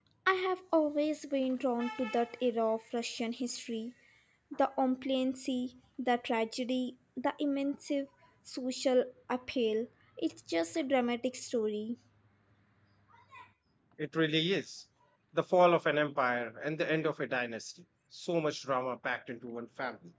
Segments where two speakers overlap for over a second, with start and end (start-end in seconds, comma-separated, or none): none